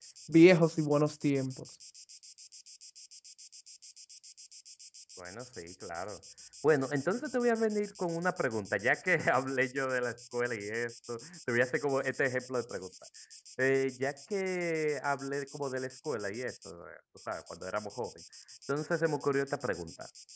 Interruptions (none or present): none